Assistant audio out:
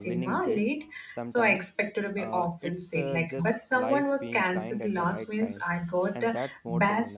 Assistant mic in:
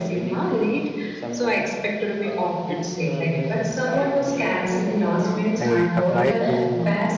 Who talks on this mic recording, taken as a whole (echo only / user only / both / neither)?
both